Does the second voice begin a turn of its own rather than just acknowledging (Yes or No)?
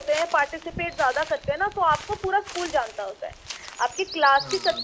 No